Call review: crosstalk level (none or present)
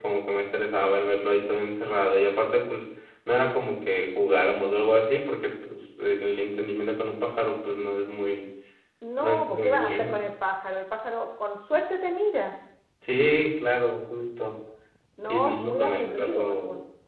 present